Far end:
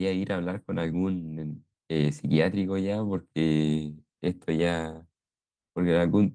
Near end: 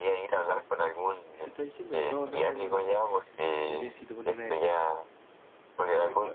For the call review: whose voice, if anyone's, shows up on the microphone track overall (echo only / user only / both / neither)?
both